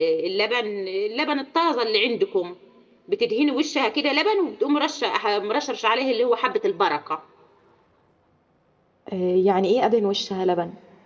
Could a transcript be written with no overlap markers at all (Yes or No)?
Yes